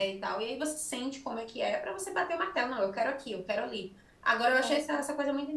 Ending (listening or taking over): listening